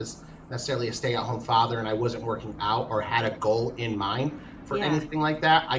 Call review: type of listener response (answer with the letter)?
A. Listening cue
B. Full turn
A